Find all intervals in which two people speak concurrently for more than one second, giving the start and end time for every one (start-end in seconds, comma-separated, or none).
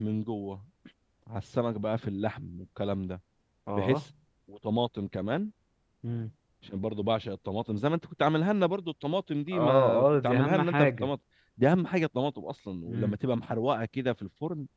9.5-11.1